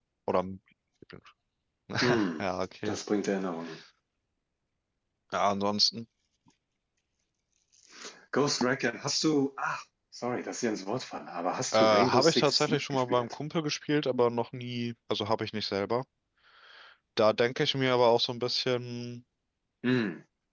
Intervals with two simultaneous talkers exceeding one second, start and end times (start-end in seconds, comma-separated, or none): 11.7-13.4